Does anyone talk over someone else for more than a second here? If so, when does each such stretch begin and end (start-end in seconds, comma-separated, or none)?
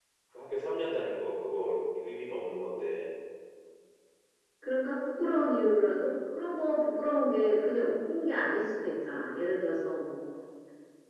none